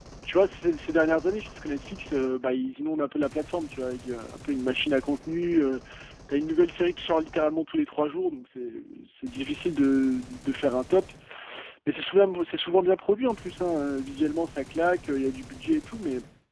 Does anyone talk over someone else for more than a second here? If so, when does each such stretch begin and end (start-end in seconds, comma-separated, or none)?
none